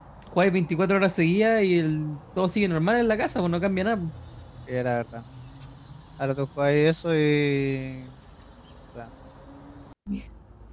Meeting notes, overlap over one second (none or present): none